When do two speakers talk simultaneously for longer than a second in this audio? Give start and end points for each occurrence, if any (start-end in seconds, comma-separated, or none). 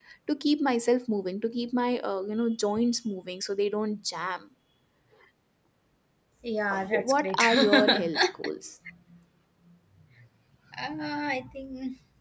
6.7-8.0